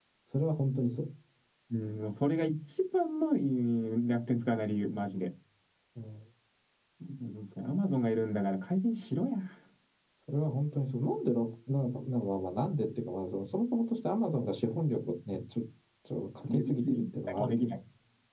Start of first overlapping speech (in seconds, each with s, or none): 16.5 s